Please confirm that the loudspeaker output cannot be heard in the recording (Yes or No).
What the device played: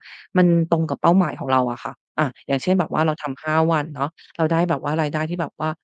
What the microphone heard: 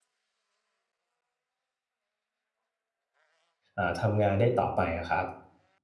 Yes